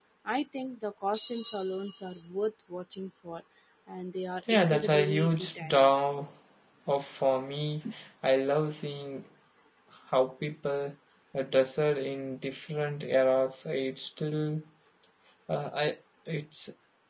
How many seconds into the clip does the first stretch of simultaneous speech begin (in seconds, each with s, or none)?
4.5 s